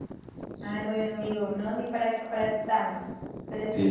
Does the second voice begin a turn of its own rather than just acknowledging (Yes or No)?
No